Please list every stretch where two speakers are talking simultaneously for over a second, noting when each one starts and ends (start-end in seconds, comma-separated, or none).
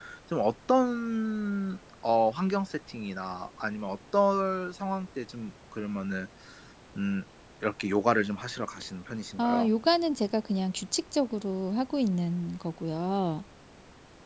none